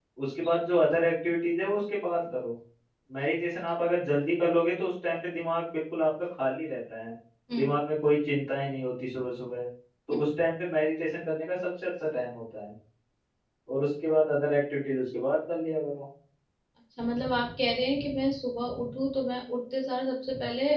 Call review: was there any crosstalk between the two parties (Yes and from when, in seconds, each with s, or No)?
No